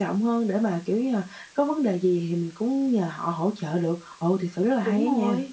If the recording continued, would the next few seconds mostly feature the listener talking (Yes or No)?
Yes